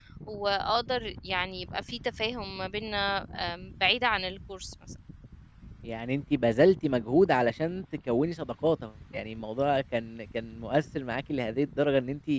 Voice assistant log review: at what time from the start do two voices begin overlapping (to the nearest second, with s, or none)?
none